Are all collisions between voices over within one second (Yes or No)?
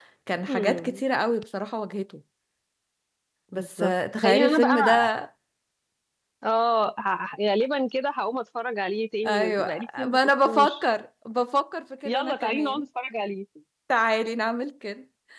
No